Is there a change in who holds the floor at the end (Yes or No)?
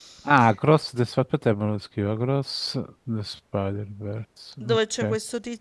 Yes